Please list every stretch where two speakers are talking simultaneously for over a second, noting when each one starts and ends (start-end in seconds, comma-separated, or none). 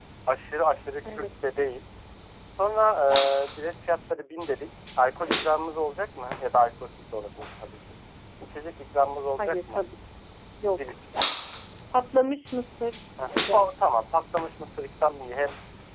none